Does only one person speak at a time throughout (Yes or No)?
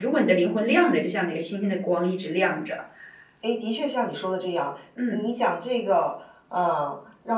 Yes